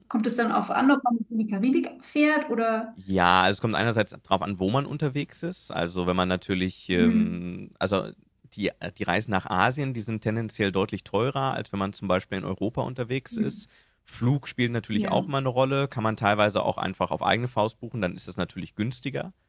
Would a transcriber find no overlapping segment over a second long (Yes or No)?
Yes